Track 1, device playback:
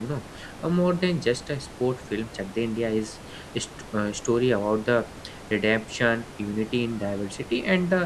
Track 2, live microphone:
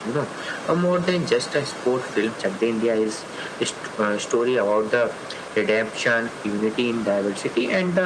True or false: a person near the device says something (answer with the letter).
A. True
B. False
B